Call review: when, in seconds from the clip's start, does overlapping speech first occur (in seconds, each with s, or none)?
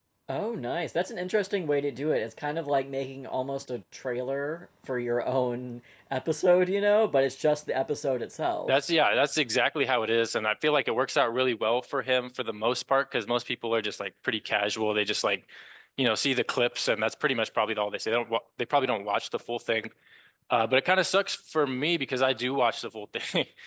none